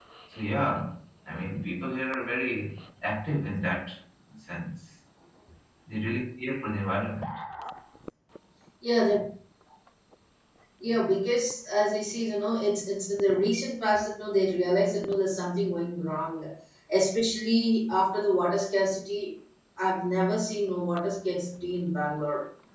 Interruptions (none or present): none